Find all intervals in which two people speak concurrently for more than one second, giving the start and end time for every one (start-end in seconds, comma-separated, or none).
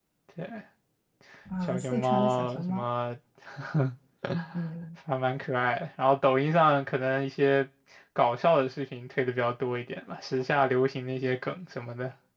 1.6-2.8